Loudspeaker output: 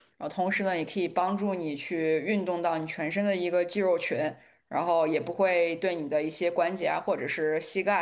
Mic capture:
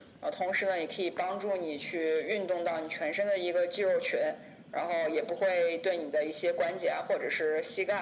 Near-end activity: none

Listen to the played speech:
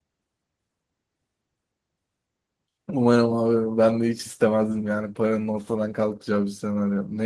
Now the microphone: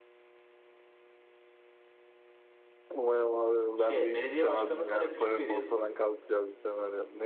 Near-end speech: present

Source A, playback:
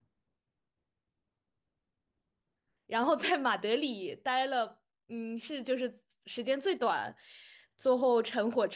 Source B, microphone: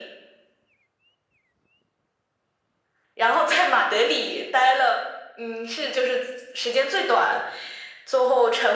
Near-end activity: none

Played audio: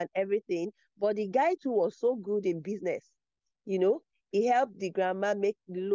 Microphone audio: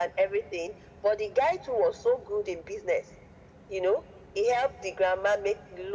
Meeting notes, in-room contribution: none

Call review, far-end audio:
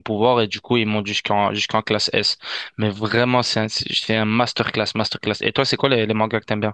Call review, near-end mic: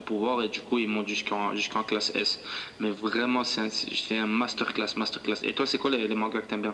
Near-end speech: none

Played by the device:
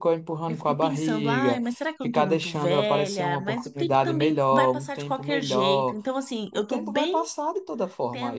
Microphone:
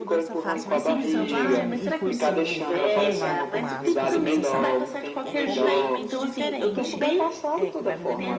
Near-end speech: present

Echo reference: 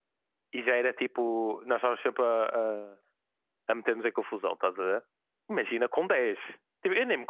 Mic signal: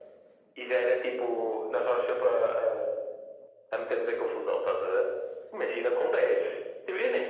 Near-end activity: none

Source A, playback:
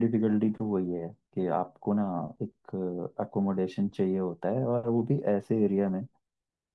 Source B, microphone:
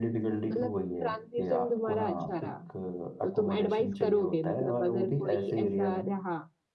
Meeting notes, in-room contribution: present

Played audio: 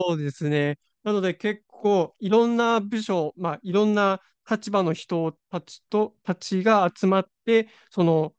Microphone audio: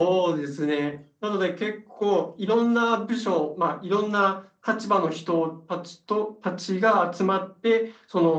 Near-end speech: none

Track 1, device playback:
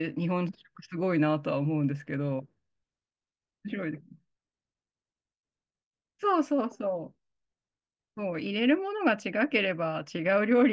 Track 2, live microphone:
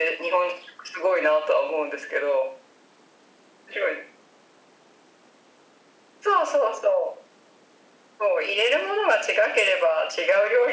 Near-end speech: none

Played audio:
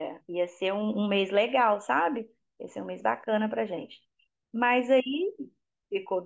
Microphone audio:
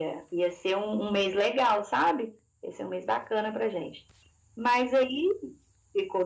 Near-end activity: none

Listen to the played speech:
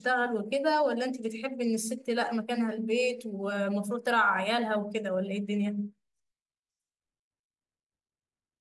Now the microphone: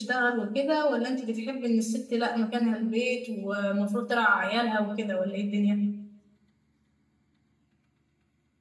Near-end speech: none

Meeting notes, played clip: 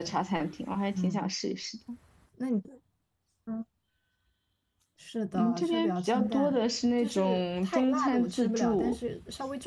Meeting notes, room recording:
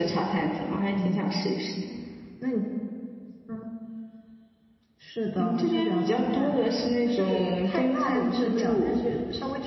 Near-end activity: none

